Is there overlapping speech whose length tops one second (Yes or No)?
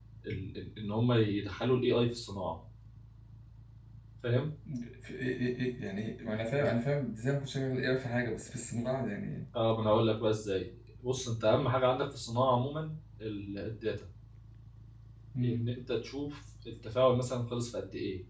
No